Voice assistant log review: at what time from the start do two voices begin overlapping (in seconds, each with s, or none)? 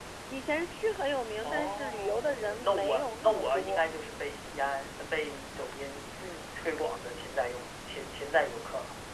1.4 s